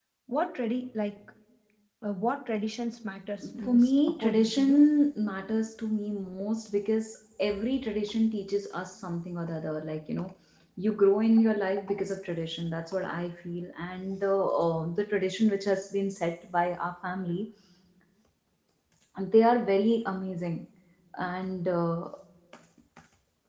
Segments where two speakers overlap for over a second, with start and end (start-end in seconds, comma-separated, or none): 3.6-4.9